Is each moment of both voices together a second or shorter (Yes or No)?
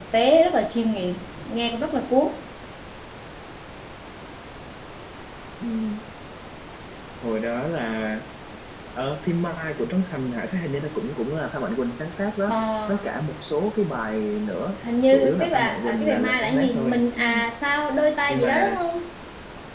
No